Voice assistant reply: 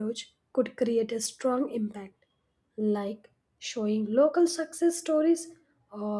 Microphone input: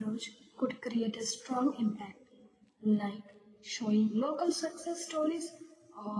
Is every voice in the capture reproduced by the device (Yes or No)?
Yes